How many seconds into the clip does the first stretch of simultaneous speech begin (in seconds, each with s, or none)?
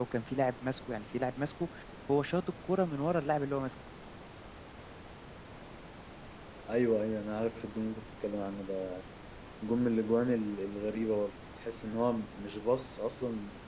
none